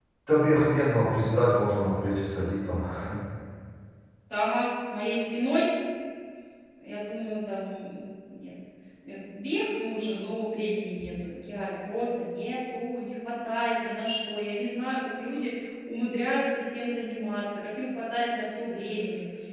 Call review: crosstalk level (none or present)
none